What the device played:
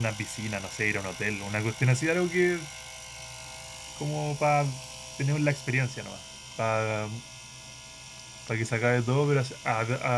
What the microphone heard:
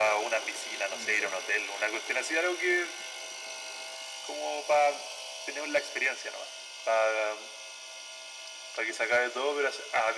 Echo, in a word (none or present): present